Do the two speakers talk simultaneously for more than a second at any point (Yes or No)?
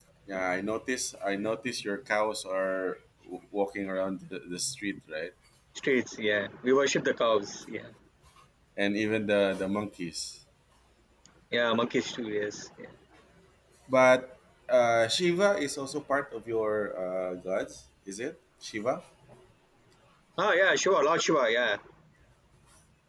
No